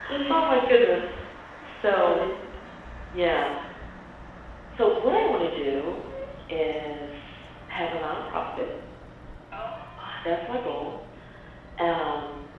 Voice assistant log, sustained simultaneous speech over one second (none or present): none